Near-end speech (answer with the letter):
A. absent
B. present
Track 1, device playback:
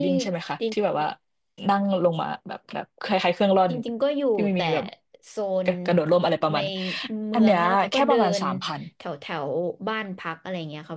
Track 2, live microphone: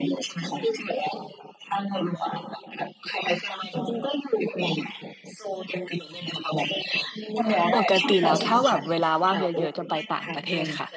B